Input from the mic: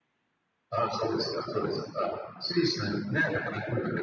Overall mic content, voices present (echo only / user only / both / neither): echo only